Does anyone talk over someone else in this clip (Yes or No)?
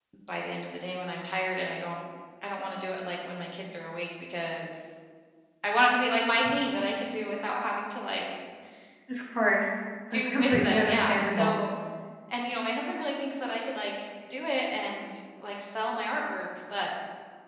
Yes